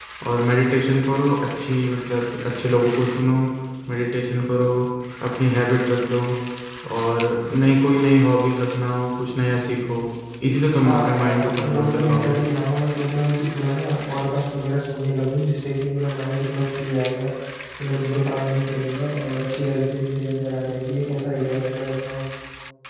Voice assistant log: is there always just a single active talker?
No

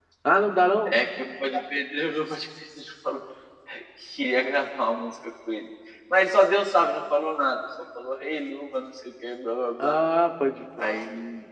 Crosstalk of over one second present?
No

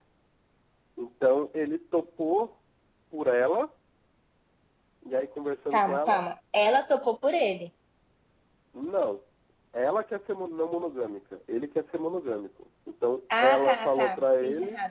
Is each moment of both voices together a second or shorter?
No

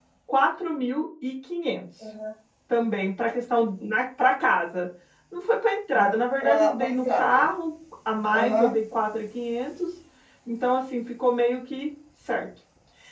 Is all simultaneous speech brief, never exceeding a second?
No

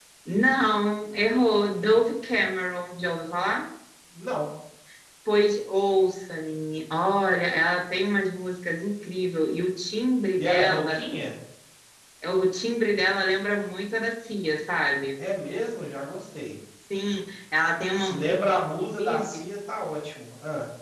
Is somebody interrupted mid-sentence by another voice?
Yes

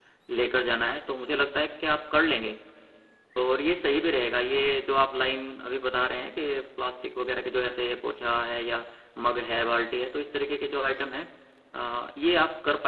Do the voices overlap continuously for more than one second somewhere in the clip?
No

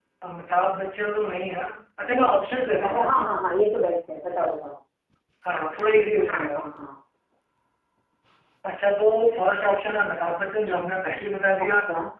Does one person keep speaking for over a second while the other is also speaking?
No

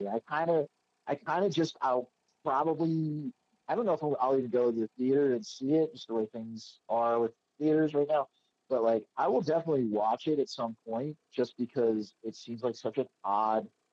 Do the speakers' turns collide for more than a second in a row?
No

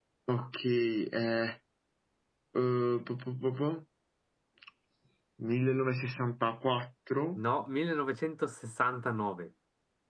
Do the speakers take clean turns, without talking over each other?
Yes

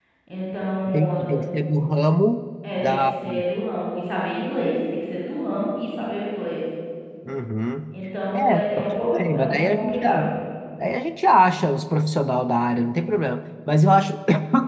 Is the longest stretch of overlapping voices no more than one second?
No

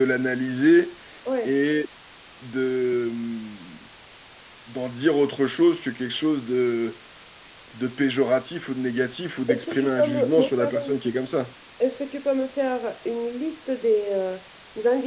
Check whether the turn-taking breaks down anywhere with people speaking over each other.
Yes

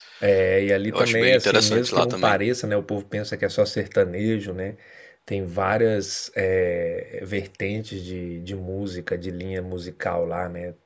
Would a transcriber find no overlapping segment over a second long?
No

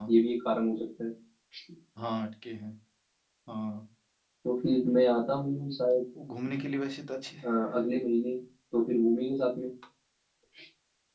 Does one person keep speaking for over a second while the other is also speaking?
No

